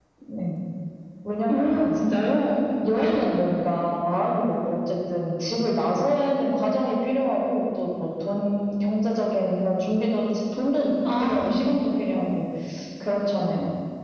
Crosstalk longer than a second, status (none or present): none